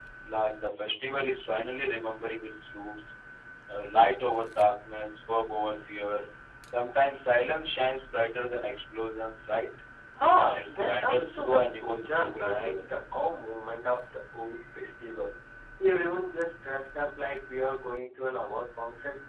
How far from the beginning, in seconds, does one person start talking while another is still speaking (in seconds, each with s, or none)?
10.3 s